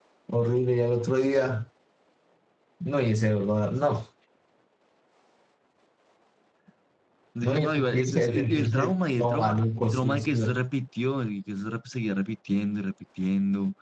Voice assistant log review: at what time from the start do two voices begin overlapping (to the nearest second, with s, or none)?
7 s